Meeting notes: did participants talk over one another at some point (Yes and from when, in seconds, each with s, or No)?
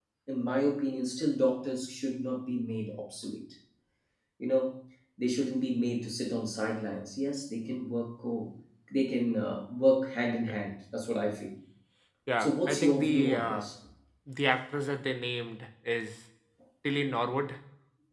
Yes, from 12.4 s